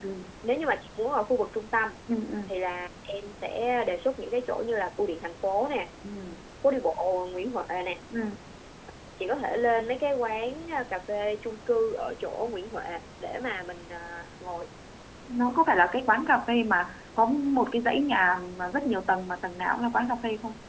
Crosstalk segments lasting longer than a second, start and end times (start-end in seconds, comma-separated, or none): none